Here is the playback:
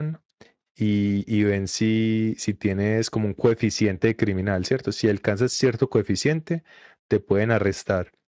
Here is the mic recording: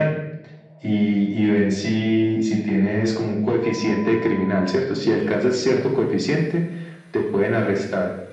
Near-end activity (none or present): present